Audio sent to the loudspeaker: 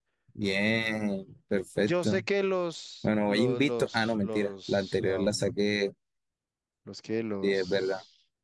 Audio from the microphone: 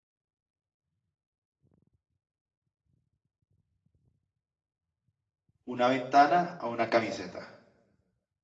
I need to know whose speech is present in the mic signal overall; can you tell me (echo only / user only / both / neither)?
user only